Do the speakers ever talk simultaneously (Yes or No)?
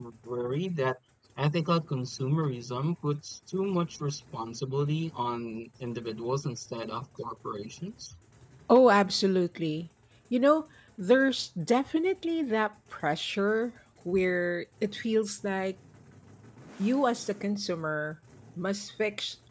No